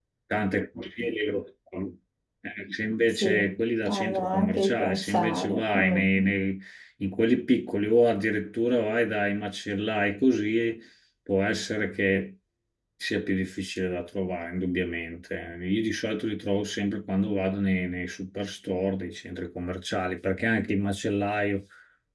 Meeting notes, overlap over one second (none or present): present